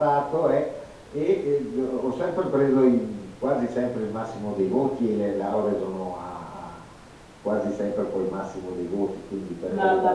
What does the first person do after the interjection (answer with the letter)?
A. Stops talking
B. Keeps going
A